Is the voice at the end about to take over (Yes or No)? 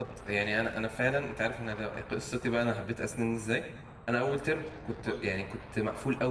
No